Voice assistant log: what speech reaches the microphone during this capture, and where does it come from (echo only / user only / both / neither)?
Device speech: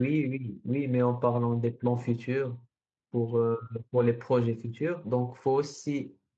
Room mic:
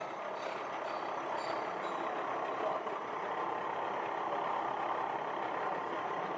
neither